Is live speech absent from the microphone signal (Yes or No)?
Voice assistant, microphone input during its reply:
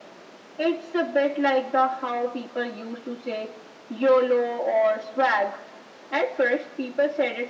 Yes